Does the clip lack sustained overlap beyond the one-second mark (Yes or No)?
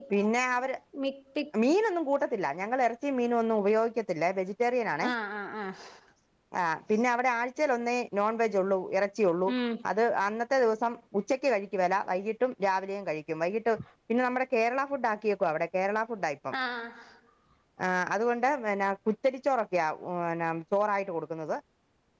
Yes